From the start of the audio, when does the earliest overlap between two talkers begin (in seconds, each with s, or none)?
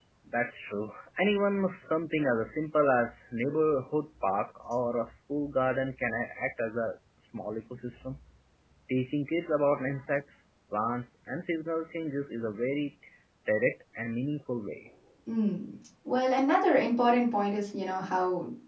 none